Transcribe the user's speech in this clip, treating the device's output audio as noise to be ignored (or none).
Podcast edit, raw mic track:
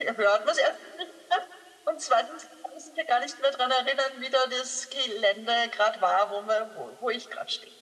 none